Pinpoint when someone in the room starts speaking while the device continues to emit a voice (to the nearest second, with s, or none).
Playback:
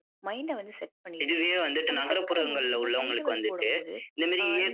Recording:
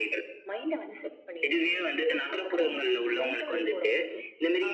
none